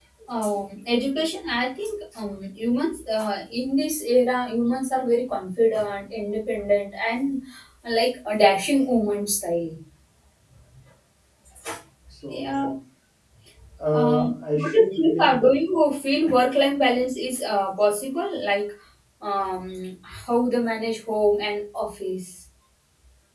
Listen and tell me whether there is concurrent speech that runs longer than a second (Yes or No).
Yes